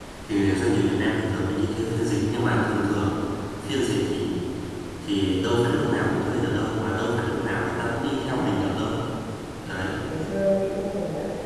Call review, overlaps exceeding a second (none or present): none